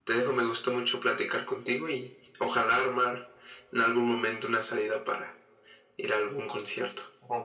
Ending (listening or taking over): taking over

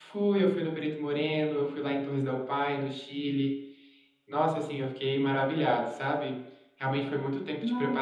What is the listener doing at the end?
listening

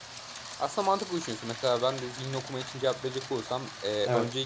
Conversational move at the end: listening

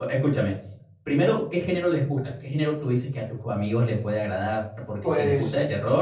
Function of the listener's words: listening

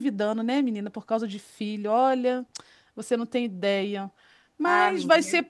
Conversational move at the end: listening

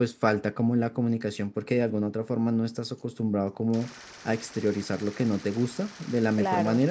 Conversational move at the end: listening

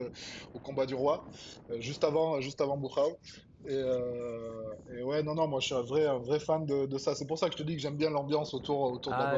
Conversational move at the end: taking over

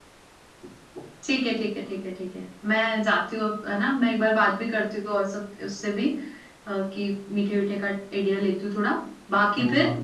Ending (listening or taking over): listening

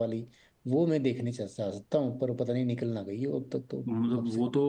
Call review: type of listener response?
taking over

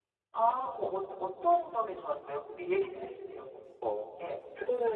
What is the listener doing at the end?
taking over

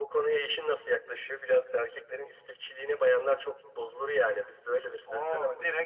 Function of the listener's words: taking over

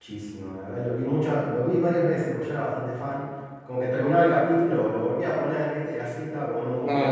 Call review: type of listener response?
taking over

